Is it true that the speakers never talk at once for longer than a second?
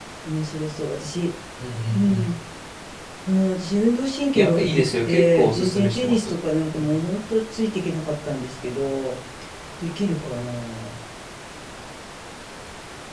No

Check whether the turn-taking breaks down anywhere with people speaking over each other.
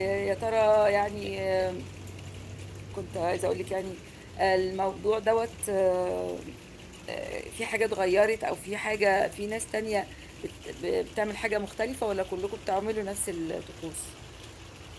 No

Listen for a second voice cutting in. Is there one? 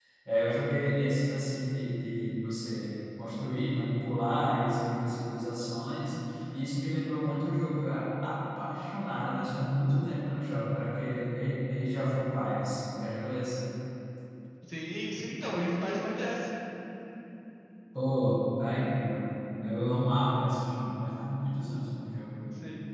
No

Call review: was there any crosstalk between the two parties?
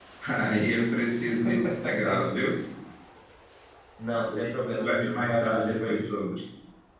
Yes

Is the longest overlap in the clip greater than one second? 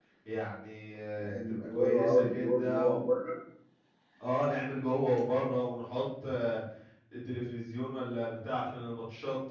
Yes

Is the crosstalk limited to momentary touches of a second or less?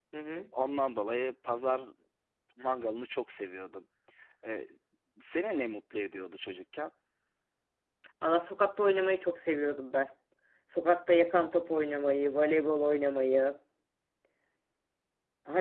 Yes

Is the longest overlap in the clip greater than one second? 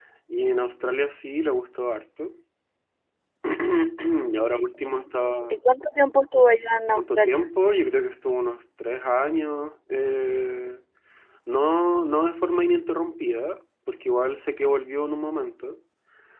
No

